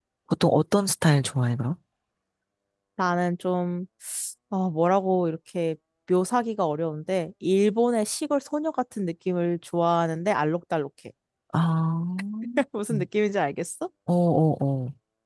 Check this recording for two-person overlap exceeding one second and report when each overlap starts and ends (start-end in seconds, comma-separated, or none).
none